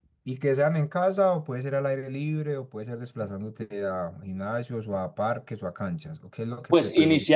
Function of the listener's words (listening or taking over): taking over